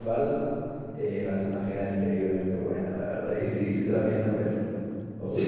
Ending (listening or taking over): taking over